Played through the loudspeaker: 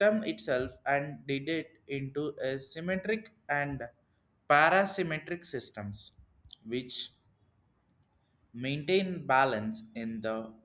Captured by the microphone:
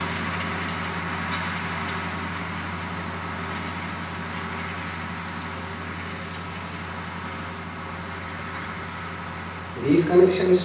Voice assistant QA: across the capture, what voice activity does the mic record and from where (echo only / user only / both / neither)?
user only